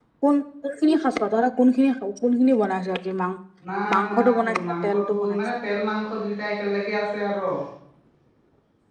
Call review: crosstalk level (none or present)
present